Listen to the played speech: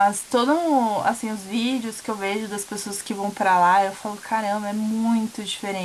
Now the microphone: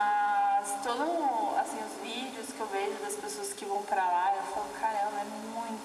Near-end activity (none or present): none